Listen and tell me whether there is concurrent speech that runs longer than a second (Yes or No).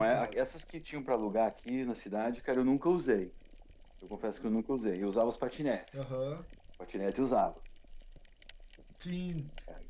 No